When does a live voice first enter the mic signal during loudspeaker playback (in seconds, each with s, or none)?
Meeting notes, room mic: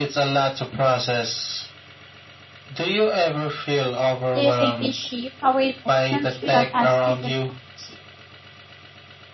4.3 s